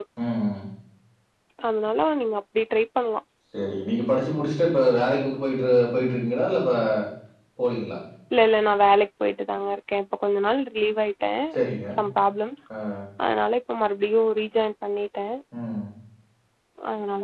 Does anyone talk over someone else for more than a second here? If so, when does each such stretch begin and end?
none

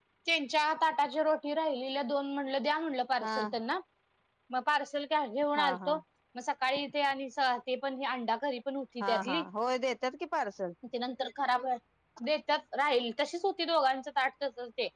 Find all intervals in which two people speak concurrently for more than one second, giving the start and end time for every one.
none

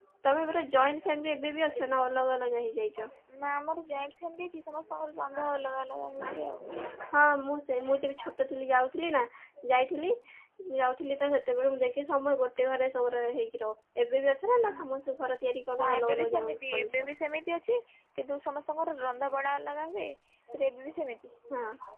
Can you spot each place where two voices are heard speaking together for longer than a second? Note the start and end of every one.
15.8-17.1

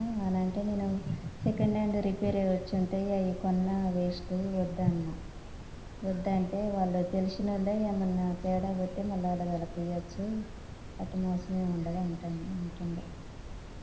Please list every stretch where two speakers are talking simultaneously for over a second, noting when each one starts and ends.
none

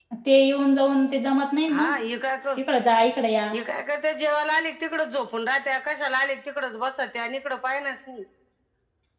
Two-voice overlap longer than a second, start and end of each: none

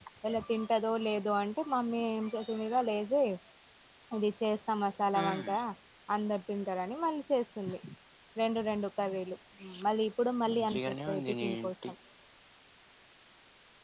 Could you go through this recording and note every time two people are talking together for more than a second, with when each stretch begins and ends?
10.5-11.9

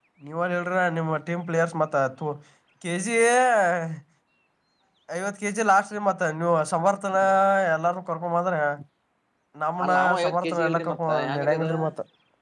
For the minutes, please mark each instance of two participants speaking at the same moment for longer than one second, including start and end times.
9.8-11.7

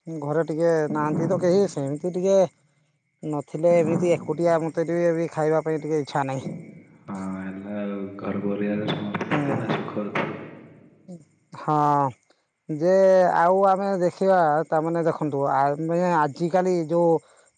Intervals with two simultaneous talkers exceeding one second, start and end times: none

